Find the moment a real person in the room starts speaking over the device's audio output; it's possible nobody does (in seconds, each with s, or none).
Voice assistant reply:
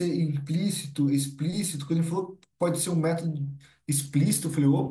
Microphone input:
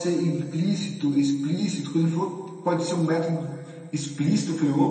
none